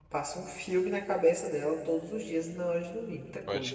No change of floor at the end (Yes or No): No